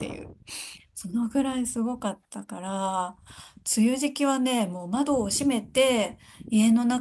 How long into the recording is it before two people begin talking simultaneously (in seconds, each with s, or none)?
none